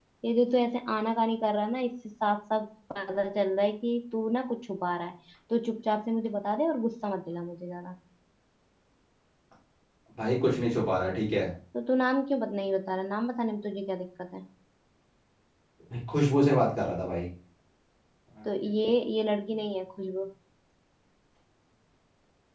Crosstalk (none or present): none